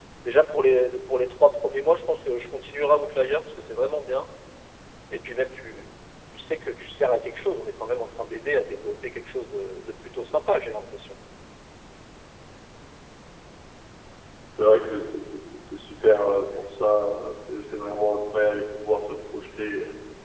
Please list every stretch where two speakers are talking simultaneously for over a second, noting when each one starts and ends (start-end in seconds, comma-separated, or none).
none